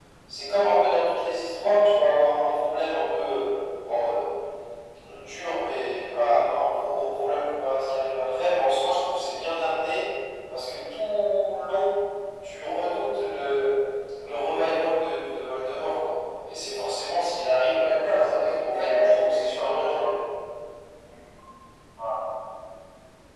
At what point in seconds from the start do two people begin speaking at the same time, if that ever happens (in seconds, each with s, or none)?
17.8 s